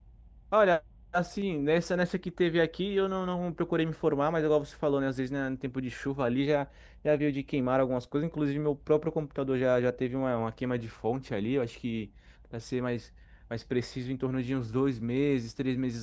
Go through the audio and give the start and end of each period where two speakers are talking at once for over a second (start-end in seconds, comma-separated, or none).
none